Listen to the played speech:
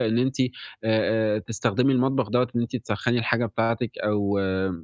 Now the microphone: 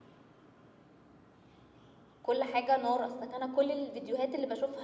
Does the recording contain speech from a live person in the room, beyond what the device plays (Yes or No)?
Yes